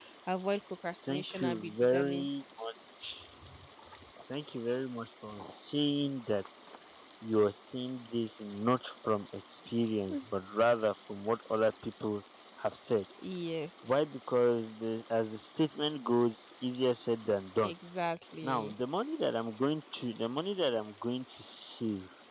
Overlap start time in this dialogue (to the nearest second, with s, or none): 1 s